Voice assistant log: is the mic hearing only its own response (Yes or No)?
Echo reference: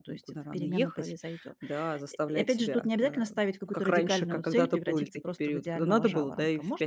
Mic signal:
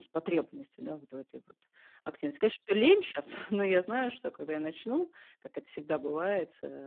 No